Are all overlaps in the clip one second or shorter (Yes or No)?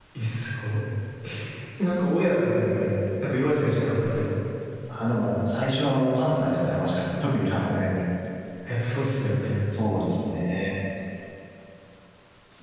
Yes